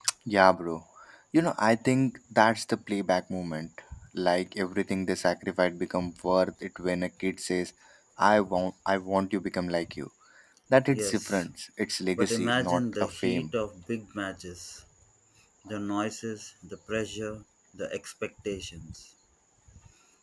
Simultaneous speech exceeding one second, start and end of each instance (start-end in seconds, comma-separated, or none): 12.2-13.4